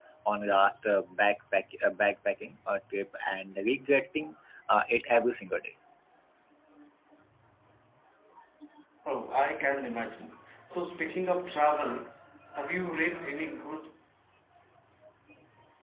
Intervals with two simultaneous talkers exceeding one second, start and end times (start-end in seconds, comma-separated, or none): none